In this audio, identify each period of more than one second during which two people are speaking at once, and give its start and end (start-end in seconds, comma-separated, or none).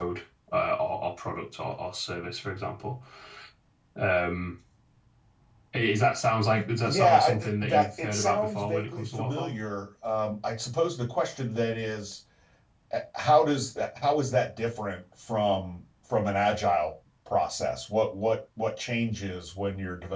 6.5-9.6